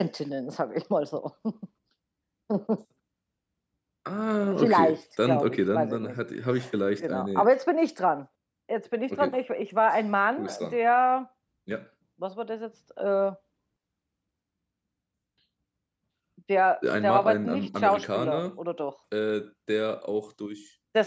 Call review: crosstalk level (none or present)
present